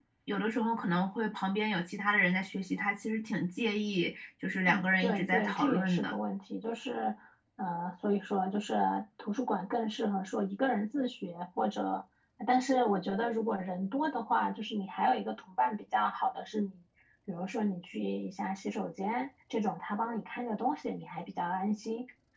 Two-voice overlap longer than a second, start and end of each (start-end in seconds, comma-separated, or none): 4.7-6.1